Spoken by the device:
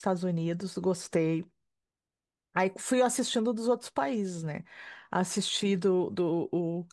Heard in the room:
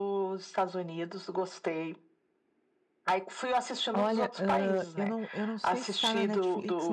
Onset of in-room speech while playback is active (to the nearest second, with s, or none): 4 s